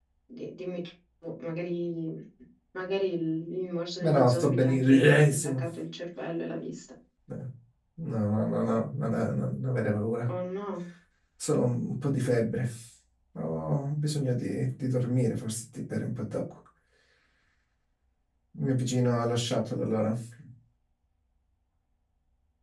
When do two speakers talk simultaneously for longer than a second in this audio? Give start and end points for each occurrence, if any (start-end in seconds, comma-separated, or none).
4.0-5.6